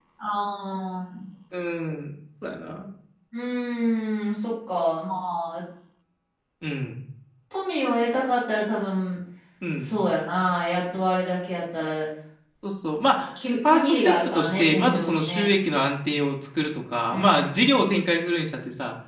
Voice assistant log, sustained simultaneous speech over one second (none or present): present